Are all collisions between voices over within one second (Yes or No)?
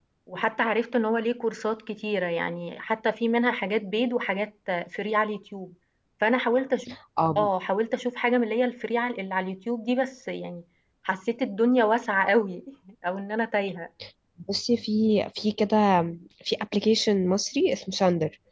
Yes